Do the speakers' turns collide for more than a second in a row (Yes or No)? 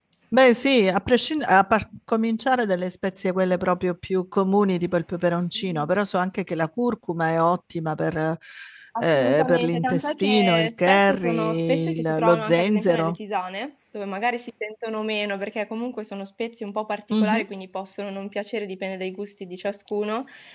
Yes